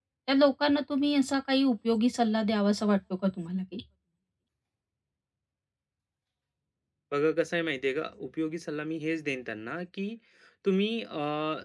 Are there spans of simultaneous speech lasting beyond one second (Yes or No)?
No